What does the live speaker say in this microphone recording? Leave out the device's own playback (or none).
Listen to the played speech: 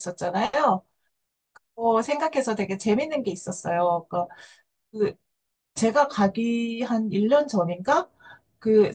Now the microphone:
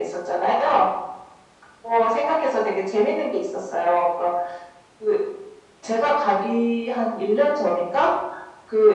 none